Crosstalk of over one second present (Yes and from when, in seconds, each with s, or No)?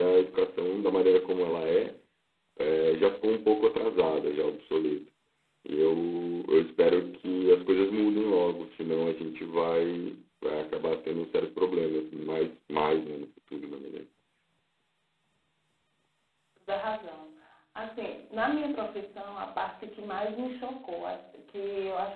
No